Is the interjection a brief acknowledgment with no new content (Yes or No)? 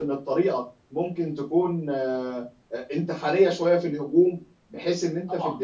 Yes